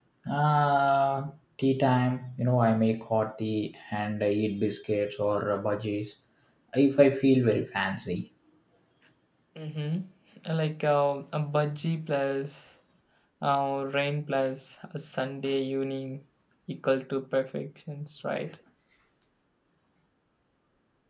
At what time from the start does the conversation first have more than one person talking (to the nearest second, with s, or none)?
none